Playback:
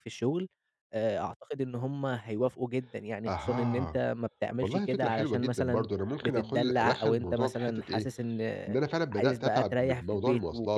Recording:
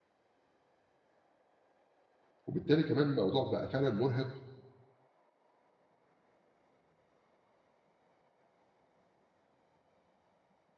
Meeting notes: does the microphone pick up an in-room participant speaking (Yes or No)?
Yes